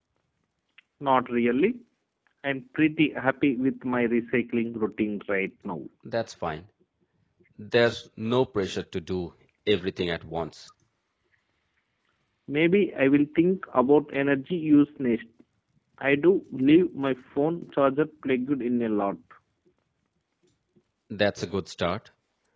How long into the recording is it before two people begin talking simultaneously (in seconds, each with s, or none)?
none